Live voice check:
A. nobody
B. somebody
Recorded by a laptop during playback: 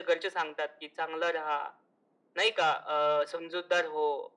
A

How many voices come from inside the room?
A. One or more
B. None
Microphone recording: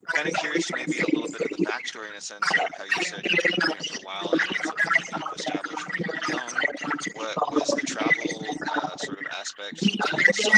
A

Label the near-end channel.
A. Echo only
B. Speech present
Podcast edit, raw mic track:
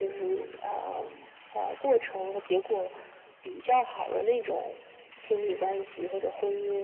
A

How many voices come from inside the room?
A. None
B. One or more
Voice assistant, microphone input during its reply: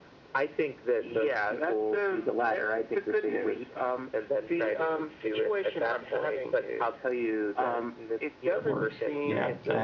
B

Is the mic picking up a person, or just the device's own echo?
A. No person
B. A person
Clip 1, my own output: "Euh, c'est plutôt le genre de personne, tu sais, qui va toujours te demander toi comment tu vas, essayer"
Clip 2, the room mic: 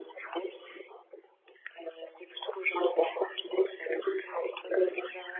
A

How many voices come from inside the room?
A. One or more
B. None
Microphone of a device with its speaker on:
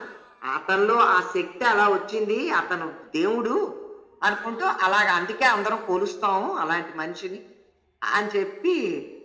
B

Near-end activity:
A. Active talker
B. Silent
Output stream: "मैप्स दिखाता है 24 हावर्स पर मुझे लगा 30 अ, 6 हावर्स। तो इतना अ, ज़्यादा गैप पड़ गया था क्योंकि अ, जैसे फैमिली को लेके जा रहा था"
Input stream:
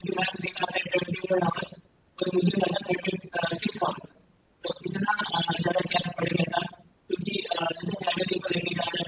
B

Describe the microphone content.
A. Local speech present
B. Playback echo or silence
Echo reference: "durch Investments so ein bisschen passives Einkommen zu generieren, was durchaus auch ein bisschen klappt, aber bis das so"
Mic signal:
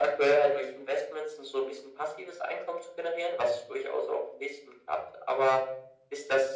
B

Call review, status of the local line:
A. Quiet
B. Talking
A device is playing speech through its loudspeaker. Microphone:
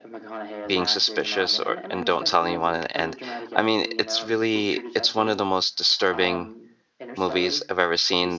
B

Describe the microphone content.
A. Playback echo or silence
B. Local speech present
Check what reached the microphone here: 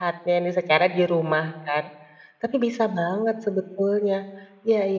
B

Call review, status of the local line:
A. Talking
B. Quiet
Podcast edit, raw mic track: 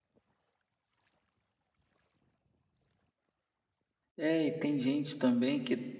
A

